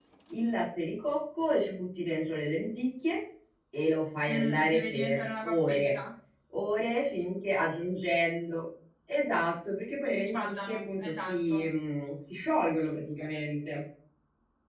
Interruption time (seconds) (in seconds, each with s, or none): 4.3 s